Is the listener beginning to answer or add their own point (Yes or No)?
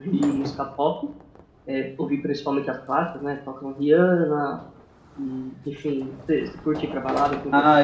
Yes